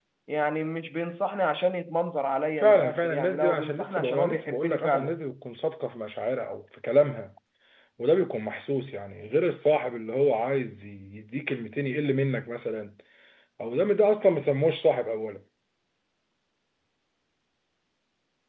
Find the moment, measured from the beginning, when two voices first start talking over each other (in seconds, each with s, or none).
2.6 s